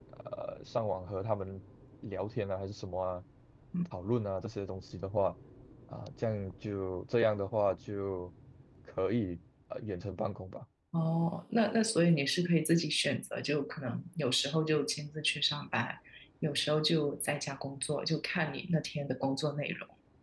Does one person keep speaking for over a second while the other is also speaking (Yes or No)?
No